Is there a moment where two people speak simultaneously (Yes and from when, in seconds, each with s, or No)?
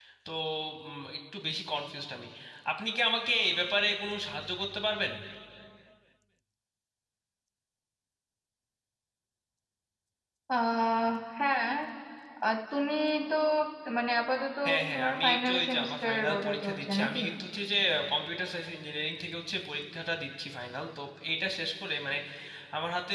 Yes, from 14.9 s